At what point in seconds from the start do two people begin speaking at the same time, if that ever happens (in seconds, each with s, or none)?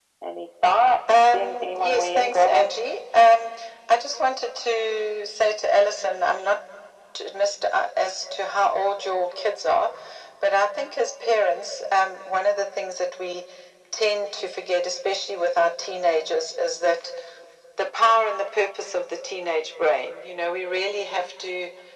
1.1 s